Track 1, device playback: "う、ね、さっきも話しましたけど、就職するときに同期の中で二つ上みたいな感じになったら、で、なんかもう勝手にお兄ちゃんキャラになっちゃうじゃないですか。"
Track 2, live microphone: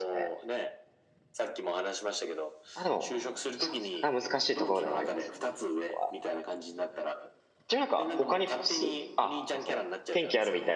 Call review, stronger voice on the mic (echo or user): user